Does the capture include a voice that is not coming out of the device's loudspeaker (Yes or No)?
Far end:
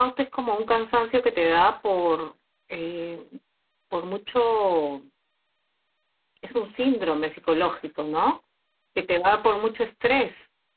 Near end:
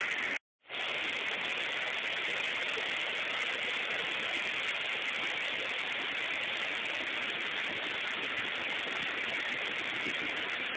No